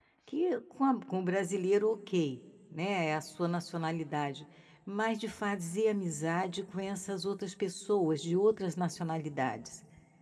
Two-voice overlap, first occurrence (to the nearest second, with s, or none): none